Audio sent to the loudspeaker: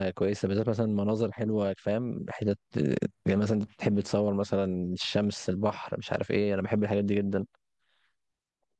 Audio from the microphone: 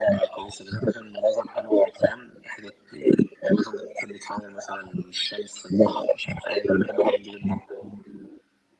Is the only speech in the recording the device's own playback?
Yes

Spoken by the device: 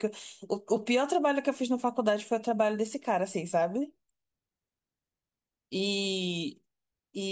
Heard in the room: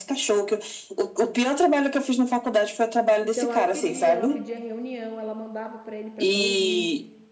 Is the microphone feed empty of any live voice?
No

